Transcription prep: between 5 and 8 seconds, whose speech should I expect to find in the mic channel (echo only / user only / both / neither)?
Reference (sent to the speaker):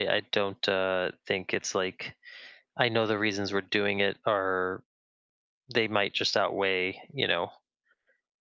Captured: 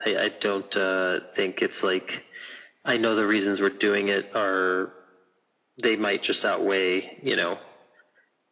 echo only